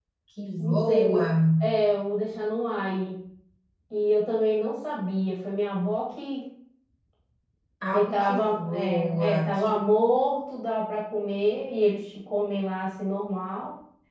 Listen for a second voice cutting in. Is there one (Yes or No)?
Yes